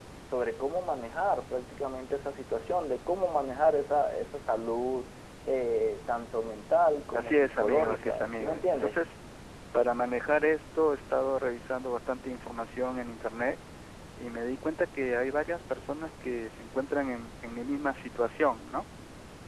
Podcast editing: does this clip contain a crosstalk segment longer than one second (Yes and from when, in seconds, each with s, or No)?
Yes, from 7.1 s